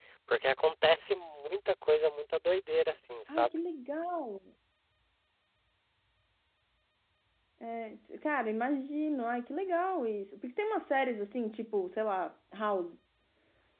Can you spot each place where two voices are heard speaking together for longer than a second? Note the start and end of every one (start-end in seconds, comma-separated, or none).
none